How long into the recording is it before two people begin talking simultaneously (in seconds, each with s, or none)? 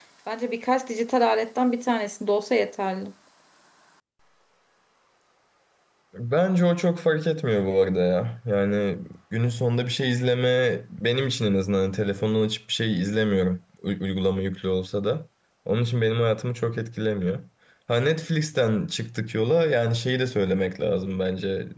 none